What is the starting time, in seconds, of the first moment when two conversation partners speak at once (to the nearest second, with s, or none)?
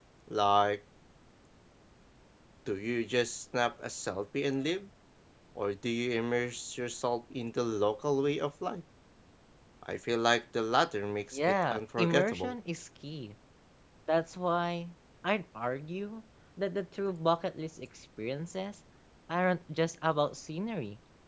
11 s